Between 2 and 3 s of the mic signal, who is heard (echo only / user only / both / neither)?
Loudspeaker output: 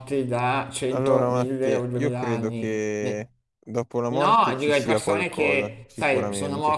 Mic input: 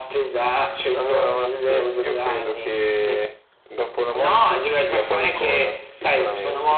echo only